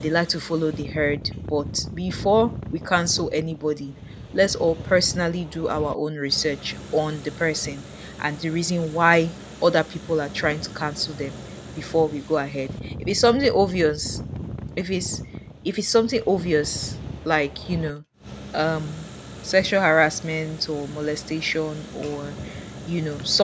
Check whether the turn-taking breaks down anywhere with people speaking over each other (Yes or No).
No